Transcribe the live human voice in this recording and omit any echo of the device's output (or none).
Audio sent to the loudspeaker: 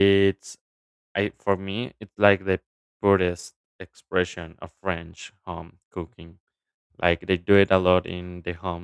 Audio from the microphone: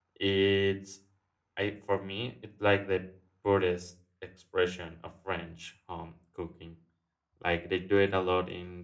none